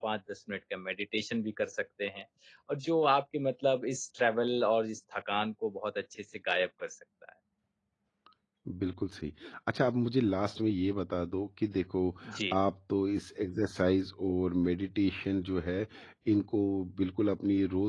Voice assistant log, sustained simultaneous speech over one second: none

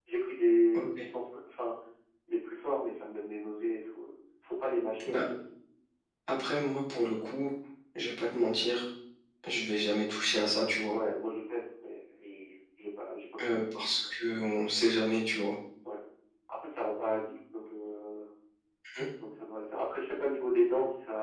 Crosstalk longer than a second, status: none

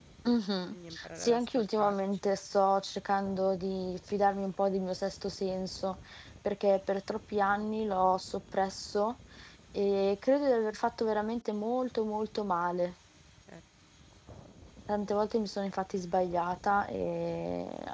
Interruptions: present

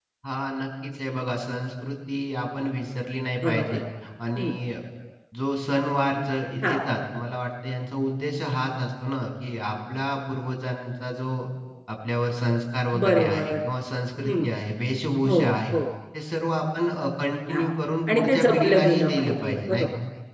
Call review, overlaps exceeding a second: present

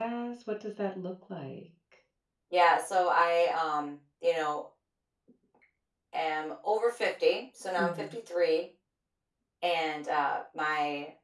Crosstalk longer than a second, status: none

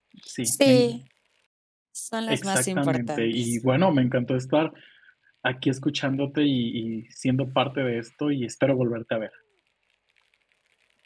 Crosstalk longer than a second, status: present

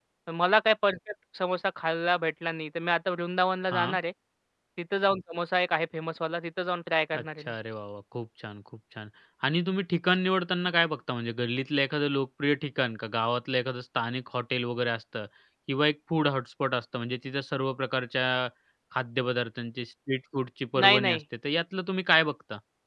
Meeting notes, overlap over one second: none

